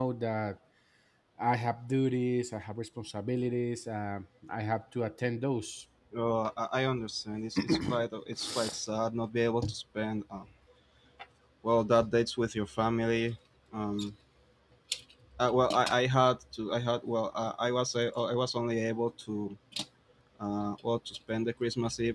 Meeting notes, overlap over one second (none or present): none